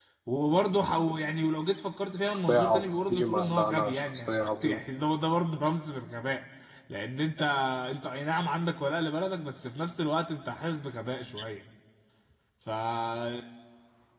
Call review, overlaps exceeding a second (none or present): present